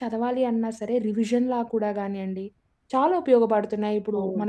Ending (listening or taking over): taking over